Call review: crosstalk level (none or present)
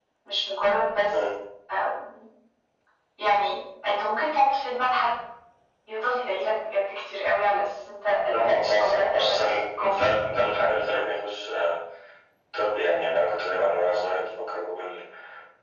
present